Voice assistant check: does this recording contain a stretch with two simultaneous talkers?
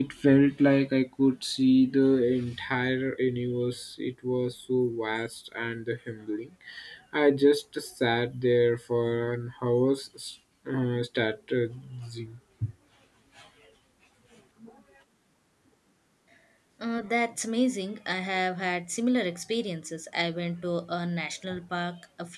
No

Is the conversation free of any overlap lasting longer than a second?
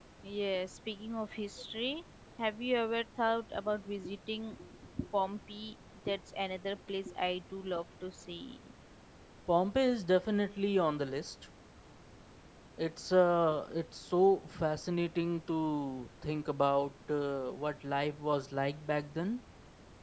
Yes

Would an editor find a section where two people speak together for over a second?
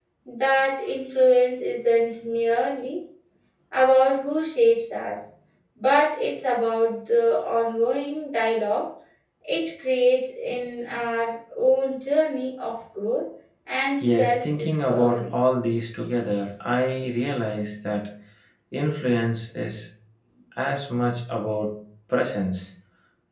Yes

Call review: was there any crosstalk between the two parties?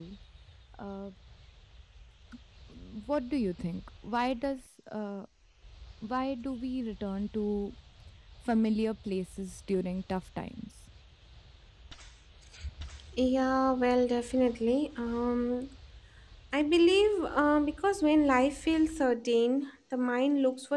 No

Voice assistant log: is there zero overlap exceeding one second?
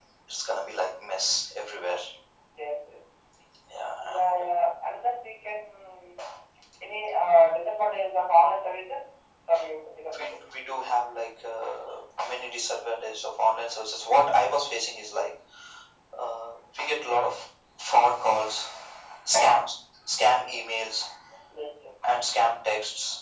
Yes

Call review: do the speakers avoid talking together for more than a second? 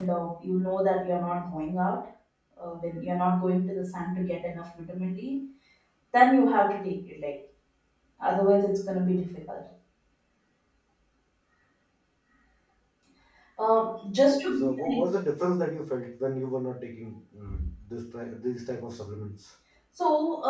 Yes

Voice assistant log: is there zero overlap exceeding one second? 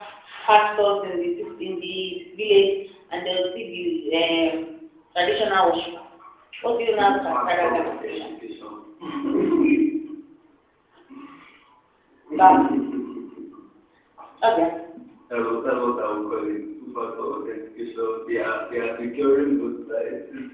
No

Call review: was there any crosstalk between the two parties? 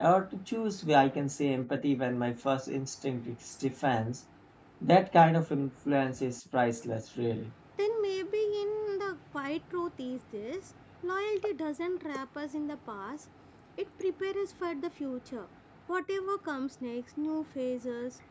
No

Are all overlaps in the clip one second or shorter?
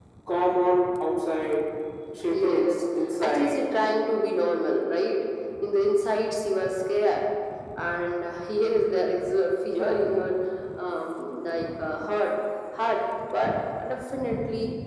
No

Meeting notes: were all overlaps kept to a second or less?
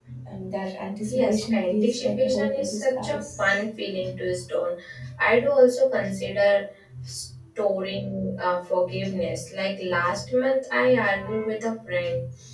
No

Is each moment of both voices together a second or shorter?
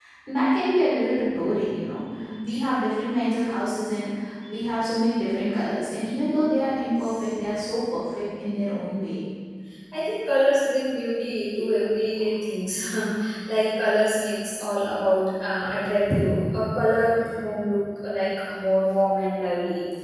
Yes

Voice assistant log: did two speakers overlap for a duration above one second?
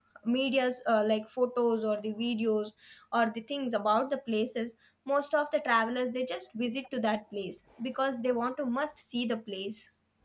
No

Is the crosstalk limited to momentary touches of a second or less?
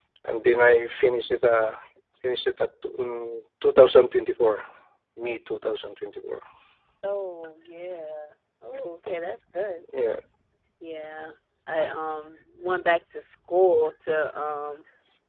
Yes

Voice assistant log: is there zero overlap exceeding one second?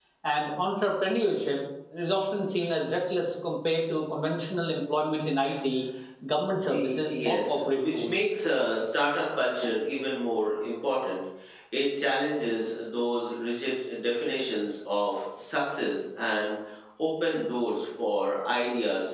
No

